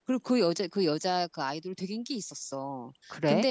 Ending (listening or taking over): listening